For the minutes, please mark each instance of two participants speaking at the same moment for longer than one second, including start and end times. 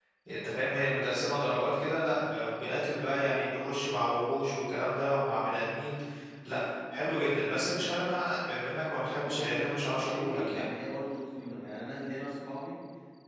9.2-10.7

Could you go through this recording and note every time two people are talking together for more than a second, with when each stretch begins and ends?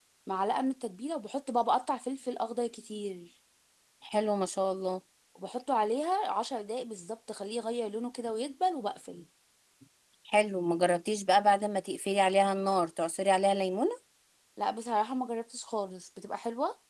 none

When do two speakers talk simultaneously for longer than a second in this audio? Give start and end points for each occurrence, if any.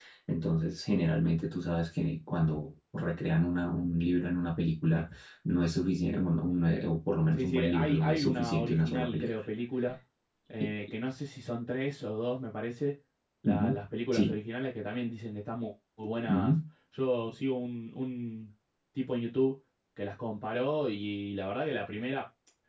7.3-9.4

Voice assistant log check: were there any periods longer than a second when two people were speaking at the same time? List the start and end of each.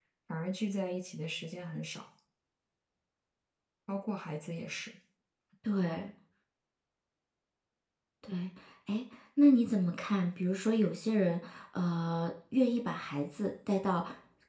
none

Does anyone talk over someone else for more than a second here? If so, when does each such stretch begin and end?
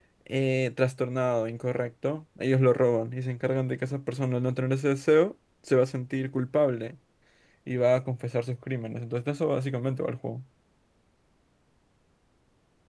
none

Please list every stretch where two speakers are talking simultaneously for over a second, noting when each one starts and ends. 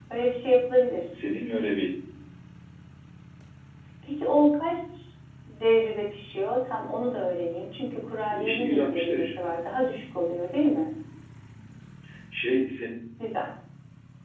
8.3-9.5

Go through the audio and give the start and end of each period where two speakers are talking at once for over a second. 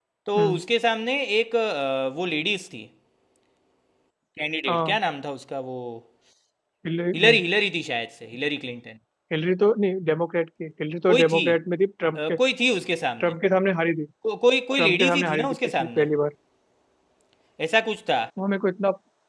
14.8-16.1

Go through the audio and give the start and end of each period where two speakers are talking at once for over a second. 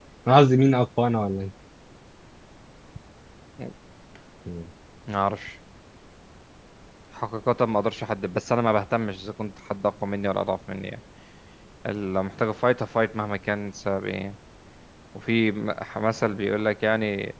none

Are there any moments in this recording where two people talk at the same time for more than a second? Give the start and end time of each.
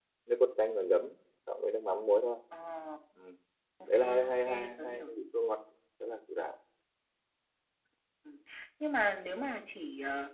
3.9-5.1

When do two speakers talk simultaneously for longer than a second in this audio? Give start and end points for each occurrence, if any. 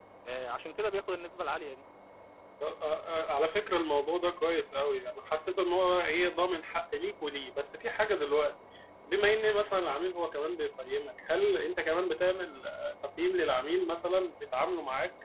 none

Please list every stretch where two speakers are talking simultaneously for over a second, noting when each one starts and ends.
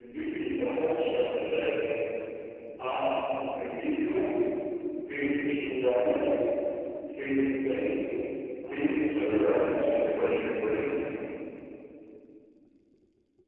8.7-9.9

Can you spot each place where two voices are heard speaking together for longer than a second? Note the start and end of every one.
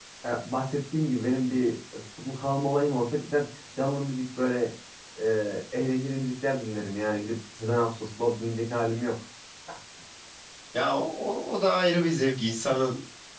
none

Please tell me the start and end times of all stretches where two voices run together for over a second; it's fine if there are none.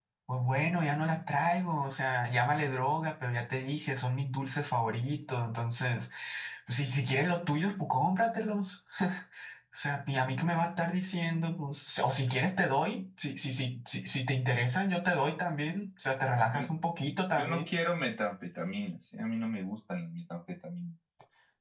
none

